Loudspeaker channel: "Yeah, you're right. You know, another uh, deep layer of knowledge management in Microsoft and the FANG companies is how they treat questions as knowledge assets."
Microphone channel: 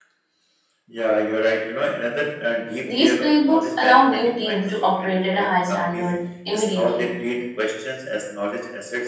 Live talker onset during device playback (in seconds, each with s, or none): 2.8 s